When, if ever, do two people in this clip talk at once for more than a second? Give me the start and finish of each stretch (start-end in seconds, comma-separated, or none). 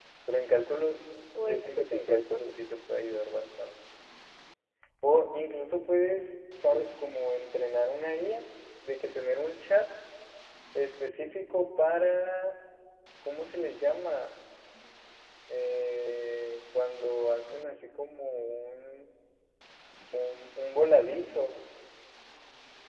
1.4-2.6